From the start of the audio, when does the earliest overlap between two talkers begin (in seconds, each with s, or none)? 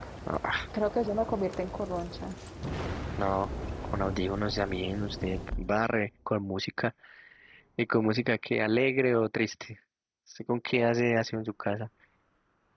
none